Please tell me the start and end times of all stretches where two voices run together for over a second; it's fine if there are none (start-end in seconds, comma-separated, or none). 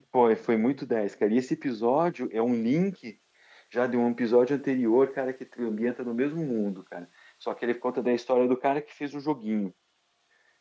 none